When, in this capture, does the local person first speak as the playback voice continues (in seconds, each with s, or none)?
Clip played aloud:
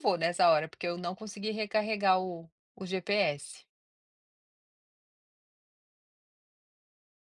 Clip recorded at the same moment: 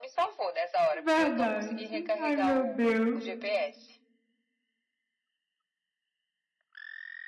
1.0 s